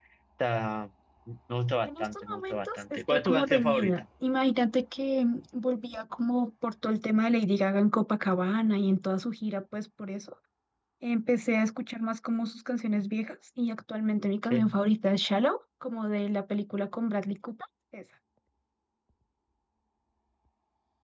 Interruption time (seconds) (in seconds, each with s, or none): 1.9 s